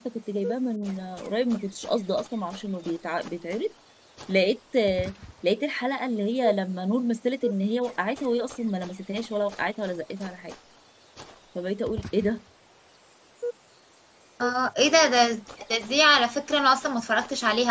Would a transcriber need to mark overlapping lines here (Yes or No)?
No